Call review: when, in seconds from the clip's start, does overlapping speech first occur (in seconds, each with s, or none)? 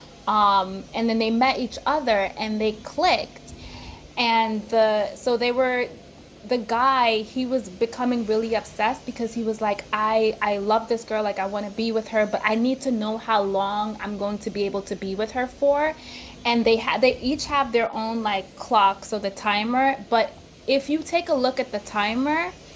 none